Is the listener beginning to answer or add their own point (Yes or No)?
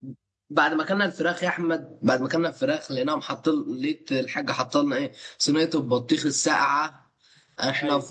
No